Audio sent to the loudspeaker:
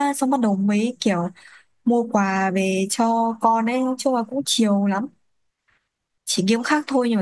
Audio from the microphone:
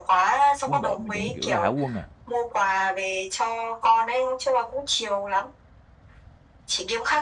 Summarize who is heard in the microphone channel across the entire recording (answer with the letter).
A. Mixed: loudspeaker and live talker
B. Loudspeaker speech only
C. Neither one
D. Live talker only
A